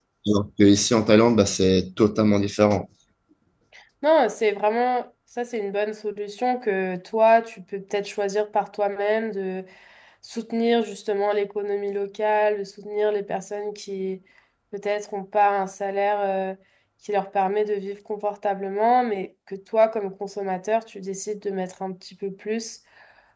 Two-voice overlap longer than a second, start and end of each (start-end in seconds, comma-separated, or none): none